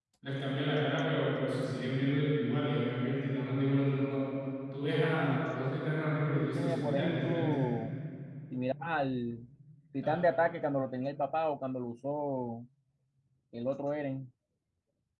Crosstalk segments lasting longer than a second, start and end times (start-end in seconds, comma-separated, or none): 6.3-7.5